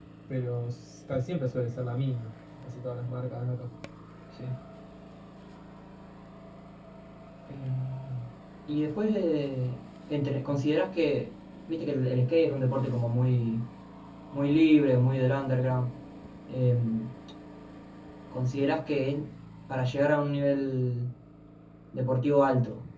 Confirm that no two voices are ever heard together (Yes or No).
Yes